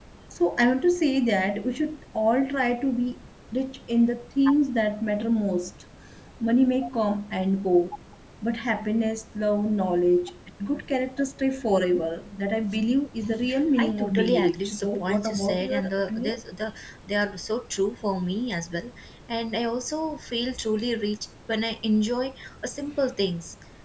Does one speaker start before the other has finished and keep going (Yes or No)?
Yes